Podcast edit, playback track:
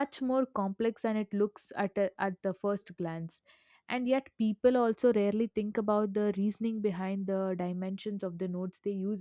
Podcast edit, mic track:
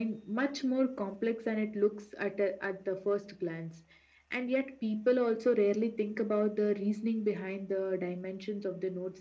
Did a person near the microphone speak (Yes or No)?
No